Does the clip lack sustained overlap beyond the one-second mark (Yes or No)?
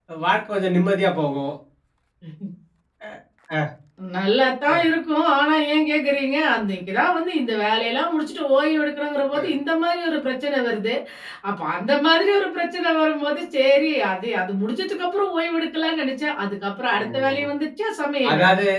Yes